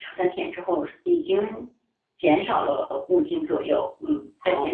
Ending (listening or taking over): taking over